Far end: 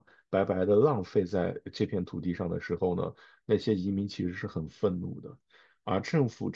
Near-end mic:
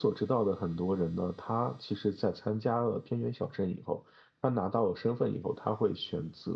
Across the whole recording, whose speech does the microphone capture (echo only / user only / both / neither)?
user only